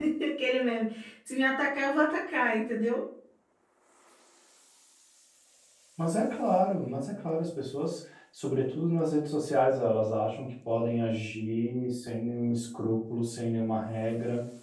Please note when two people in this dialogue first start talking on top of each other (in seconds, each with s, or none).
none